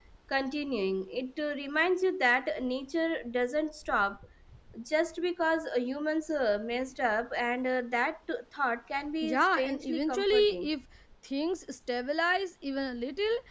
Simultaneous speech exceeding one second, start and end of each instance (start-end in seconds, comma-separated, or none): 9.2-10.7